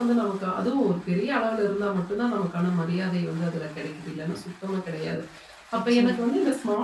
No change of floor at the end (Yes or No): Yes